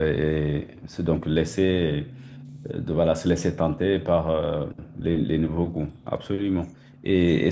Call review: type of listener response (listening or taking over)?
listening